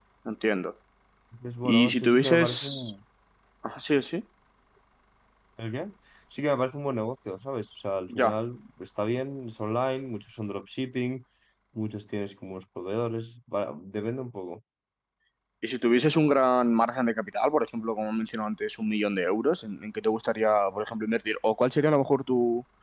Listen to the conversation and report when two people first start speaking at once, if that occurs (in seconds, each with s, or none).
1.6 s